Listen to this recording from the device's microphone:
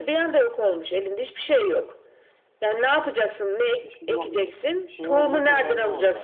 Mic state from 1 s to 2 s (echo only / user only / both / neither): echo only